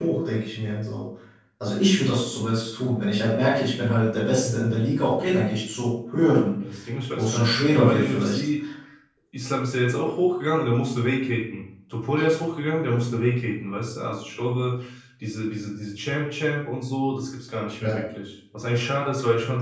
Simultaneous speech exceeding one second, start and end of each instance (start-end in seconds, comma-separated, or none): 7.2-8.4